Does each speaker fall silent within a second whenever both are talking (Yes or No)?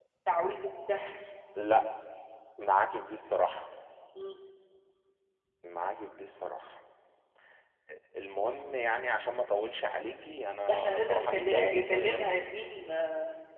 No